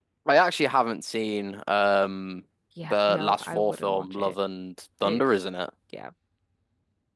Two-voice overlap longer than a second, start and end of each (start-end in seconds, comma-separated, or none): 2.8-4.3